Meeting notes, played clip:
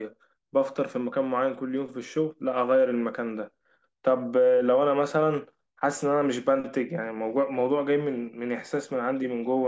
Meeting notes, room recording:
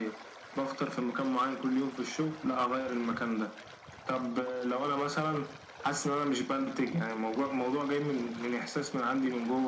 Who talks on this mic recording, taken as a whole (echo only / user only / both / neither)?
echo only